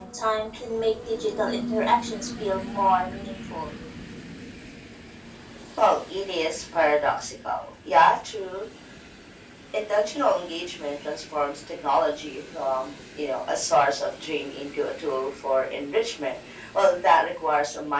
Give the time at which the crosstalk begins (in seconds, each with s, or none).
none